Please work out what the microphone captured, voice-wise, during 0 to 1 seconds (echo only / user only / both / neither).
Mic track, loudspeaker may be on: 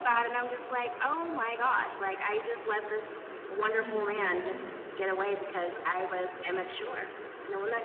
echo only